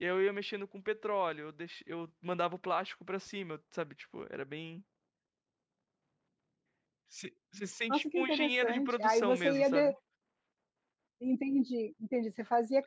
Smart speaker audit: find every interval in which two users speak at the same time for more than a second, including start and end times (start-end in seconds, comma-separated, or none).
7.9-9.9